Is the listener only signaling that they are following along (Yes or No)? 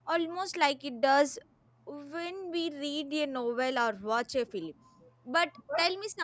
Yes